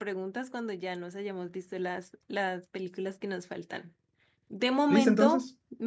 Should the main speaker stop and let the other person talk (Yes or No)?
No